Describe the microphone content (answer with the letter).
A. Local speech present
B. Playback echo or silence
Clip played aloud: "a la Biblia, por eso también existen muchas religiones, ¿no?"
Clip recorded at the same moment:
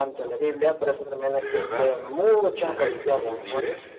A